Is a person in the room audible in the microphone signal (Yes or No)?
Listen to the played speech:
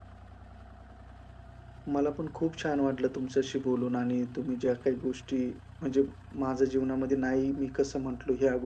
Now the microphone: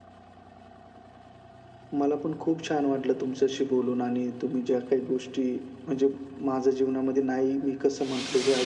No